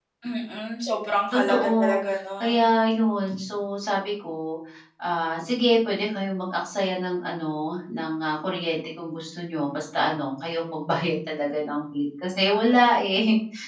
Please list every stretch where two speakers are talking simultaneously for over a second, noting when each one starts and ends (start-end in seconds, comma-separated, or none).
1.3-2.6